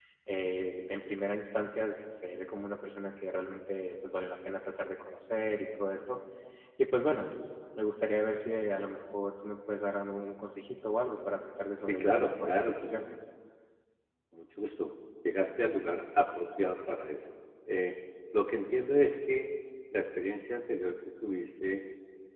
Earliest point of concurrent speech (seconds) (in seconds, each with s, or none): 11.9 s